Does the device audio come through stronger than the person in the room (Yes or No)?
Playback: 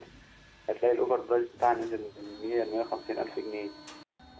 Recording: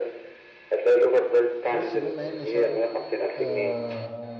Yes